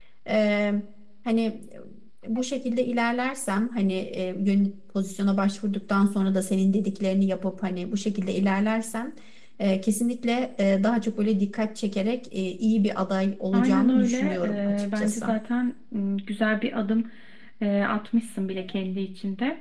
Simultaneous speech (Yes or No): Yes